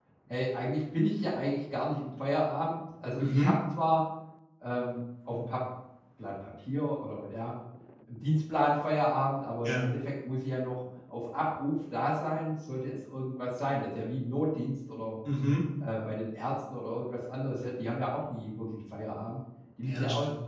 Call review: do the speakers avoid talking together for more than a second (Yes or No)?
Yes